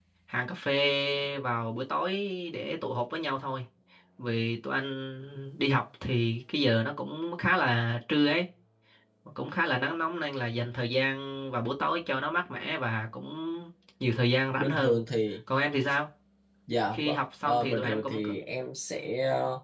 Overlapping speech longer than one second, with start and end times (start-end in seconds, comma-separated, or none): 16.9-18.3